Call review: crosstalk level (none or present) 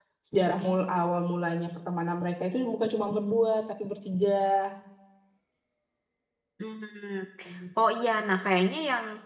none